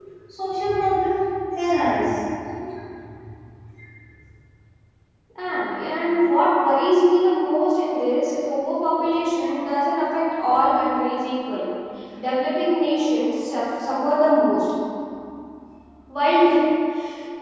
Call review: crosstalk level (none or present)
none